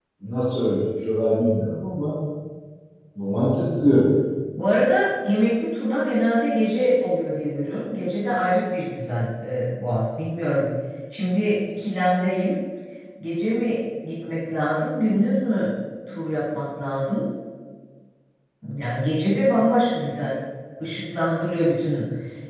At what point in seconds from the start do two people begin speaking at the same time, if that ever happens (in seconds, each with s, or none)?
none